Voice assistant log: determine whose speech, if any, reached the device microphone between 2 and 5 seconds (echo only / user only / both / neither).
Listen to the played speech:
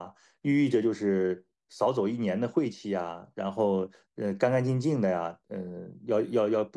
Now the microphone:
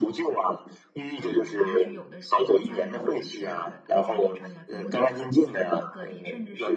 both